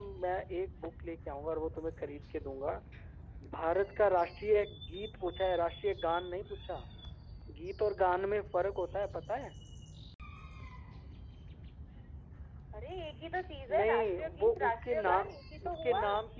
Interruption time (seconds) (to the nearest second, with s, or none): 14 s